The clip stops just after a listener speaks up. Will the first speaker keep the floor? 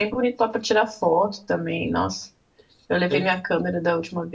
Yes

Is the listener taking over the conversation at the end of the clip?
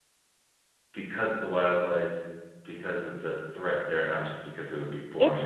Yes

